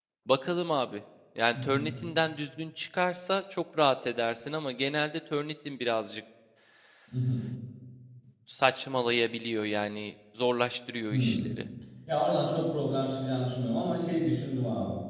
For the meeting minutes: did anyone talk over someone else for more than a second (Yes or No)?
No